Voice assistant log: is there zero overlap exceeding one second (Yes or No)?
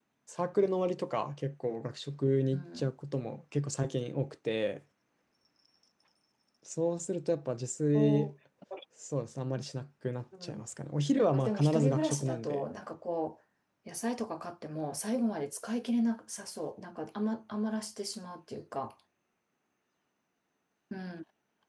No